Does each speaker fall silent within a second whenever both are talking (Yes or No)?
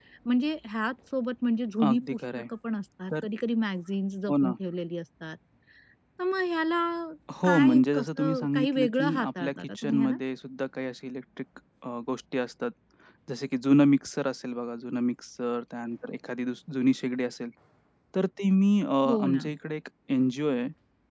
No